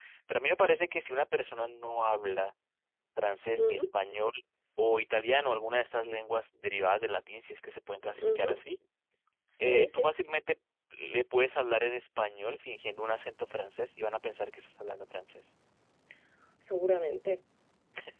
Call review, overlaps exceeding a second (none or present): none